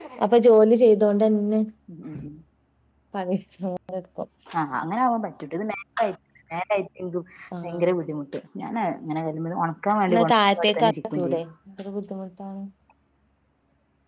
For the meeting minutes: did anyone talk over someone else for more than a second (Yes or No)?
Yes